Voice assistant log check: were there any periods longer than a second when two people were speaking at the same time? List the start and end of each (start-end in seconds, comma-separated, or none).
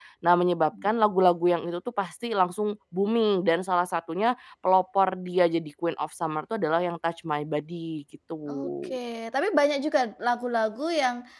none